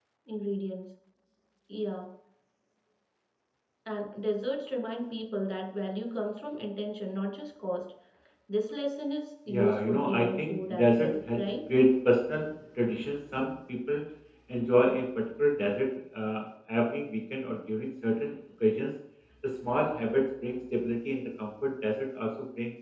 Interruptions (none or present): present